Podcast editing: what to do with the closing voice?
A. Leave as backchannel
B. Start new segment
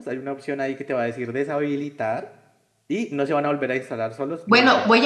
B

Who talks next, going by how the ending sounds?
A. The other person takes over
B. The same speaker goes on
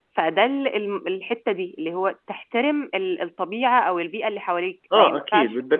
A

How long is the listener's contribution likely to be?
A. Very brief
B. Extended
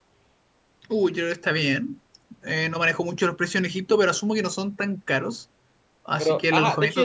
B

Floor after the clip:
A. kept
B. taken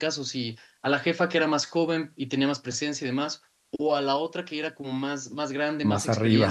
A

